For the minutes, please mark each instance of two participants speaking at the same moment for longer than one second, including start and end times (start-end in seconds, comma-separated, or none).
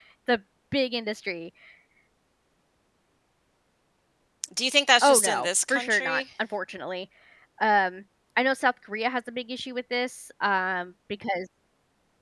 5.0-6.2